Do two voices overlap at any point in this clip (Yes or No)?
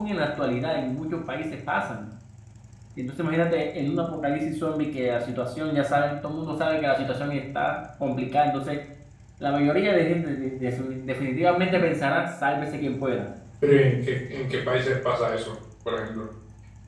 No